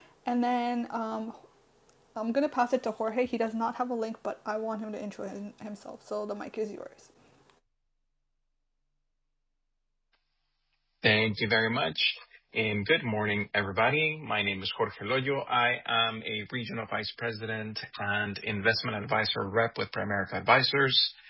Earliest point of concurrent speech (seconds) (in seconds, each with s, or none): none